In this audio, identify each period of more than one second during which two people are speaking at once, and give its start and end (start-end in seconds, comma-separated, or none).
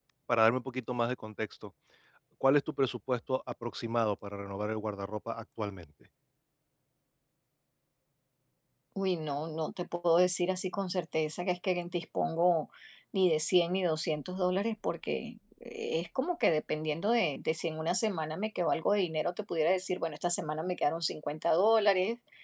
none